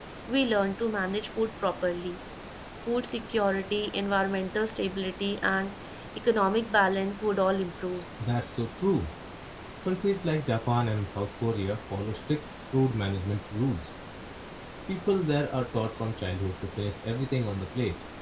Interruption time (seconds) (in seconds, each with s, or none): none